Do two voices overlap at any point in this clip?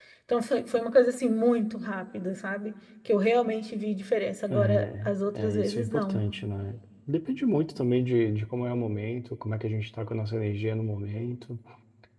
Yes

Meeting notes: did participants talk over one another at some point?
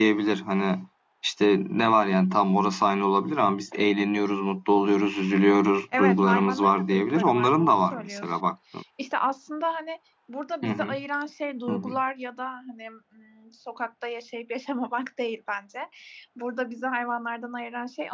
Yes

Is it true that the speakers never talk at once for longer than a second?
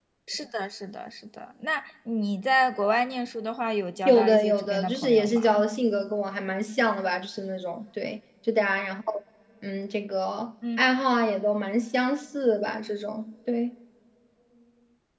No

